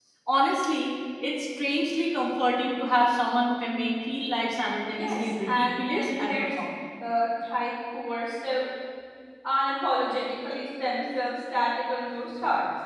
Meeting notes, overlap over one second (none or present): present